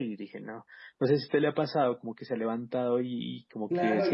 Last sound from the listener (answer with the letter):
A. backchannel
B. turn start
B